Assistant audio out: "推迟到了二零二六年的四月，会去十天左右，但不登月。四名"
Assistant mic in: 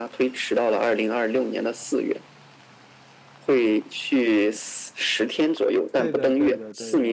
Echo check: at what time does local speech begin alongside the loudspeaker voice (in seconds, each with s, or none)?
6.0 s